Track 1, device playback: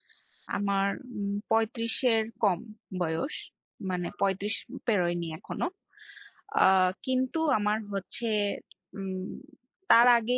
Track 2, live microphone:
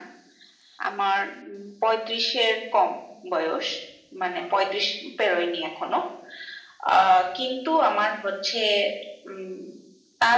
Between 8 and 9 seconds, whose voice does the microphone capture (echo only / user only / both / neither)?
echo only